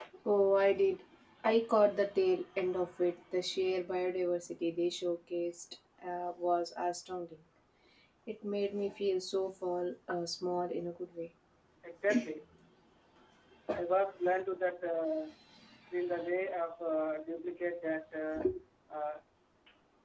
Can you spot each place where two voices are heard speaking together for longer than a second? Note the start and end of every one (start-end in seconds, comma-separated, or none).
none